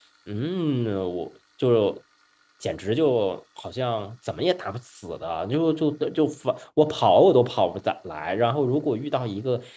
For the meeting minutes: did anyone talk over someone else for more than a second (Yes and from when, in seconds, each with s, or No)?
No